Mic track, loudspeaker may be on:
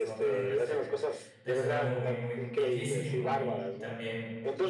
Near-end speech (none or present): present